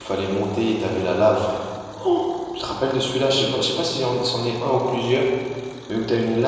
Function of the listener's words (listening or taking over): listening